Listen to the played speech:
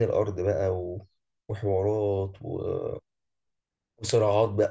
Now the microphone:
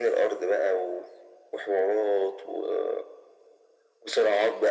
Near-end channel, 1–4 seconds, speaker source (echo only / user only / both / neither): echo only